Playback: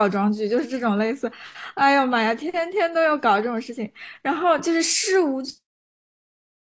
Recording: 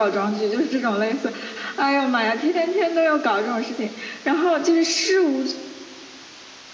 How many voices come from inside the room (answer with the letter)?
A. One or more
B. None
B